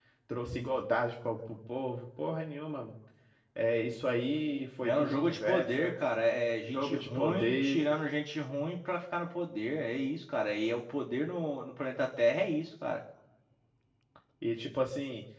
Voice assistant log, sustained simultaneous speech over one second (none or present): present